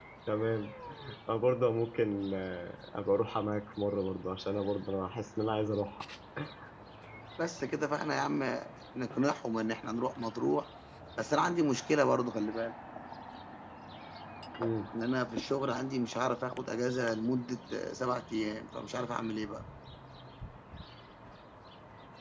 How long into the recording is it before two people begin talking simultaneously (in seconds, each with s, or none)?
none